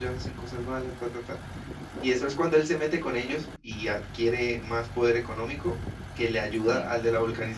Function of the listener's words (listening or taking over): listening